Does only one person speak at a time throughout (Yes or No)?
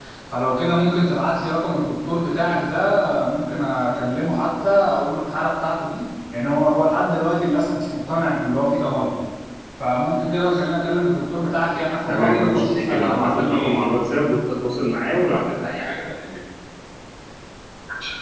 No